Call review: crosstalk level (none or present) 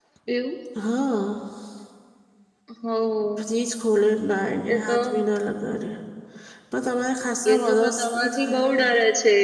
present